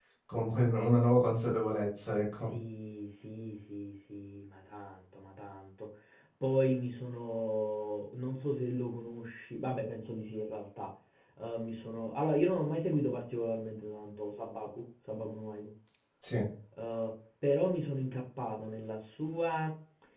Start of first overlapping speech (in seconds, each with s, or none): none